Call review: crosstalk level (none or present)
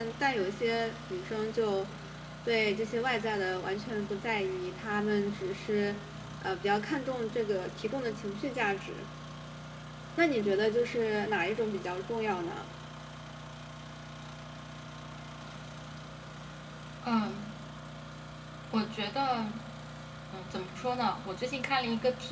none